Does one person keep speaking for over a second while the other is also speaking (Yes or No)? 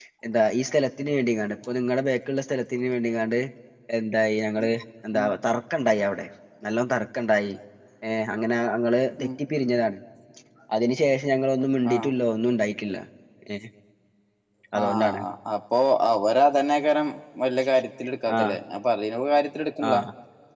No